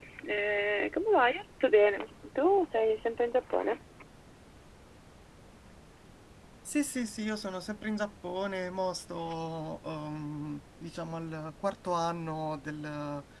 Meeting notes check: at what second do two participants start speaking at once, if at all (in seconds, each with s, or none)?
none